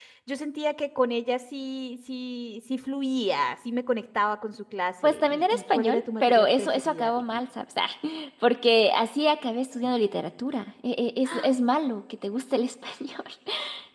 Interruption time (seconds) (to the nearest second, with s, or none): 5 s